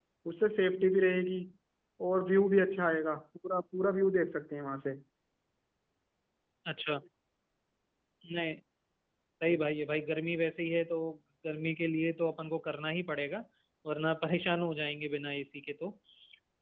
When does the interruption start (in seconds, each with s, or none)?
none